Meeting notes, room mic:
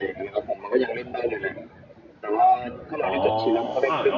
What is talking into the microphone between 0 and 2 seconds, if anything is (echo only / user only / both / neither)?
echo only